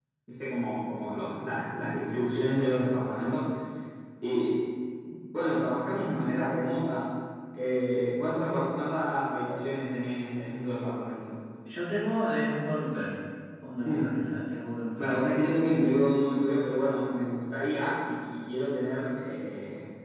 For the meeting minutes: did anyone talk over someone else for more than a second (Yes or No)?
No